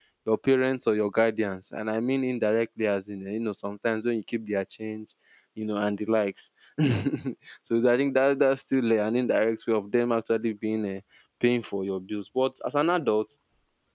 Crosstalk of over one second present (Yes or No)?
No